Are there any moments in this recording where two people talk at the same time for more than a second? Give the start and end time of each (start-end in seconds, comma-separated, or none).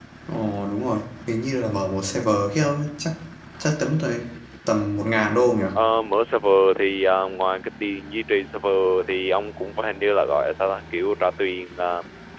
none